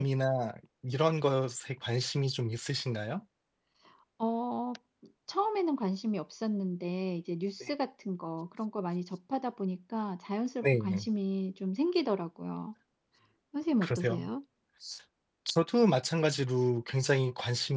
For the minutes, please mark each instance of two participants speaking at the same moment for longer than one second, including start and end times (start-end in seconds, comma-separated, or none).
none